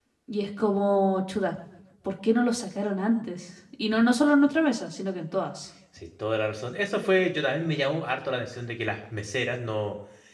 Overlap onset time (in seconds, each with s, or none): none